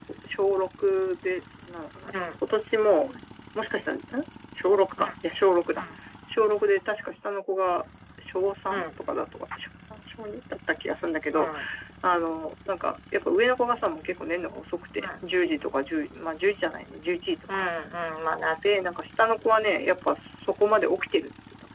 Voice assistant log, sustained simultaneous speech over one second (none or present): none